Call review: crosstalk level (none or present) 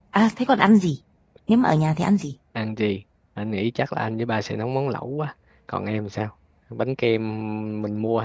none